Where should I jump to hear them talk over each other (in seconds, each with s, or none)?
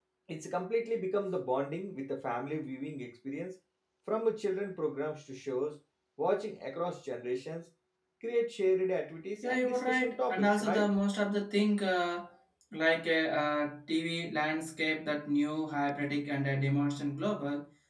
9.4 s